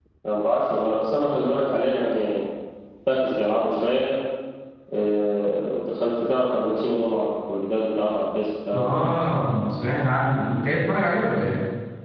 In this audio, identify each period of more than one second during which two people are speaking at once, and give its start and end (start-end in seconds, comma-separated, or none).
none